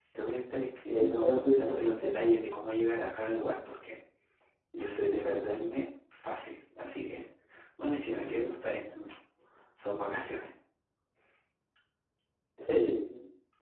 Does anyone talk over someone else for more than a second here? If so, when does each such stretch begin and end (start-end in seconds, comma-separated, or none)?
0.9-2.1